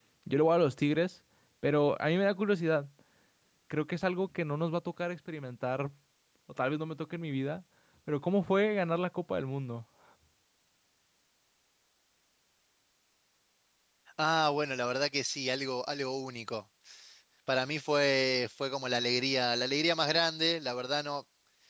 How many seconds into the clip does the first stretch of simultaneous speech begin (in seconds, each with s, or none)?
none